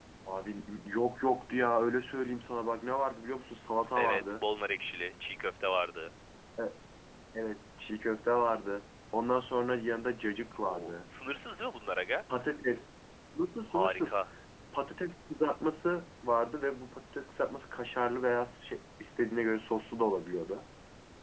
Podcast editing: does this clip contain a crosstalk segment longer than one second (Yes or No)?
No